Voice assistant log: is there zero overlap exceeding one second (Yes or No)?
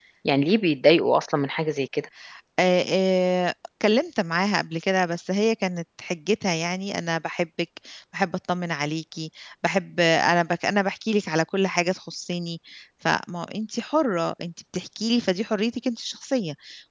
Yes